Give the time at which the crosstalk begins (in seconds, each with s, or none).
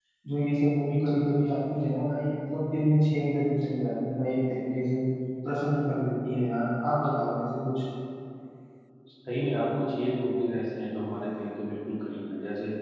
none